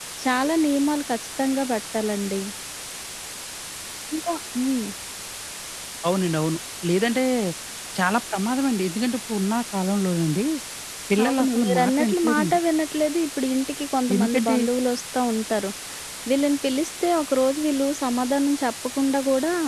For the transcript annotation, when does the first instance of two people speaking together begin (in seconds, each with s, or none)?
11.2 s